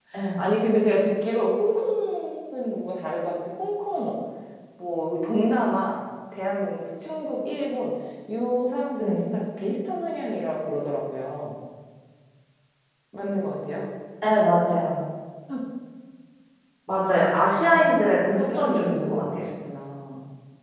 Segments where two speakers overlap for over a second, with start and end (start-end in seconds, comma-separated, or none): 17.6-19.4